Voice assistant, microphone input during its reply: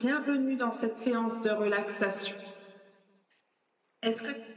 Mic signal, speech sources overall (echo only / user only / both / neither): echo only